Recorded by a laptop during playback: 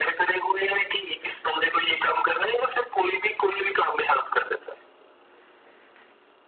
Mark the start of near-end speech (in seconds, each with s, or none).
none